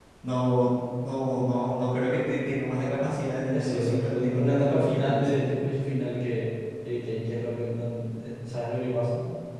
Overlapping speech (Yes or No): Yes